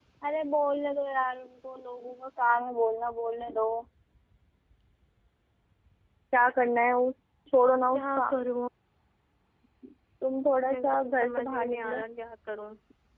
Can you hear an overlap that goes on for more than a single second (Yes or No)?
Yes